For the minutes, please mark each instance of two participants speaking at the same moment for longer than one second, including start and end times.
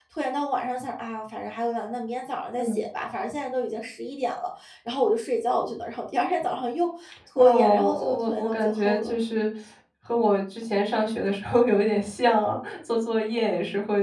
7.4-9.1

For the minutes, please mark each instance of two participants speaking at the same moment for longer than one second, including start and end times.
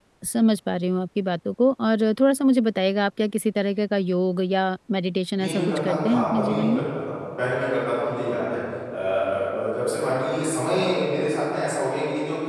5.4-6.8

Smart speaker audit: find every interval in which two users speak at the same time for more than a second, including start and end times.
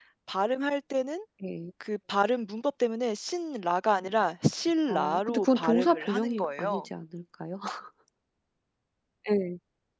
4.9-6.8

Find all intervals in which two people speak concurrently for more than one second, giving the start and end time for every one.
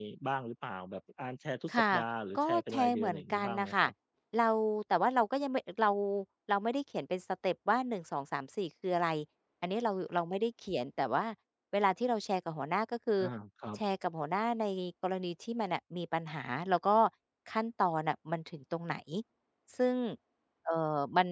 2.4-3.9

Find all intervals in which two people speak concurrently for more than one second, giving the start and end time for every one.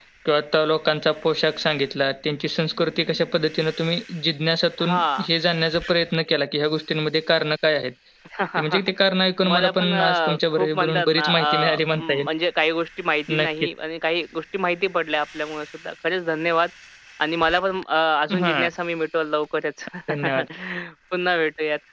9.5-12.2

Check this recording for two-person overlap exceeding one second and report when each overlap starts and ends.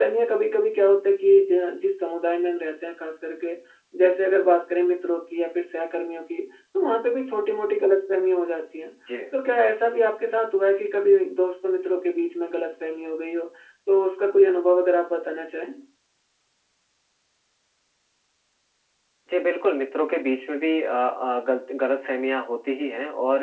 none

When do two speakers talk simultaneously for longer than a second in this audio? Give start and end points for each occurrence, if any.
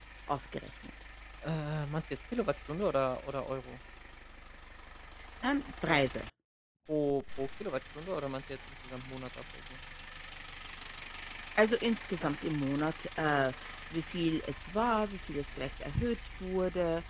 none

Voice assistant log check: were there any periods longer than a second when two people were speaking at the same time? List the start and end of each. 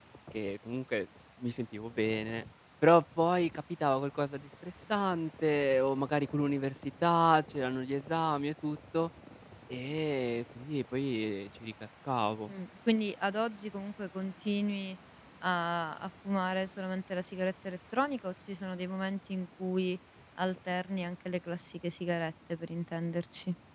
none

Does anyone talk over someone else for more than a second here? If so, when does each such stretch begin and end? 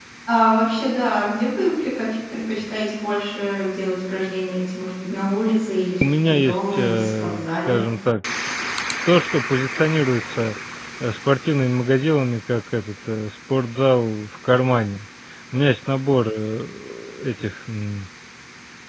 6.0-7.8

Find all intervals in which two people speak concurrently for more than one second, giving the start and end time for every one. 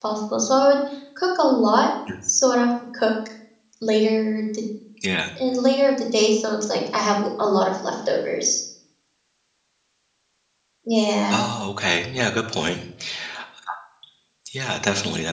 none

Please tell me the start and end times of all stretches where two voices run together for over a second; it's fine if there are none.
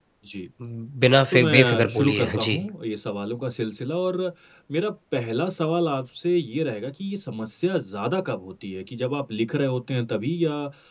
1.3-2.6

